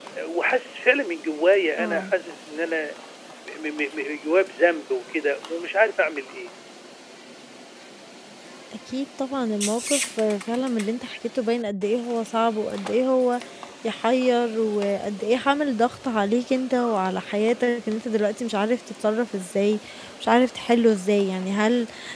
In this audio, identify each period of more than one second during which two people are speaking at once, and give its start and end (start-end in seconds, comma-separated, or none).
none